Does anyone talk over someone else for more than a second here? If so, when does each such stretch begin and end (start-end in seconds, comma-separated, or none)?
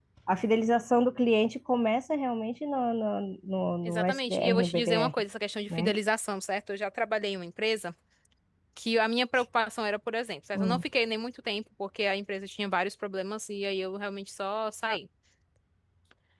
3.8-5.2